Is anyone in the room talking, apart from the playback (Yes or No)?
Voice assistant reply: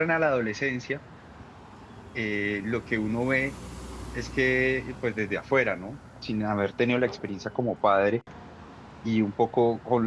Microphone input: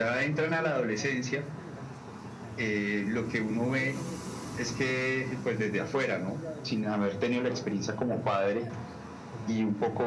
Yes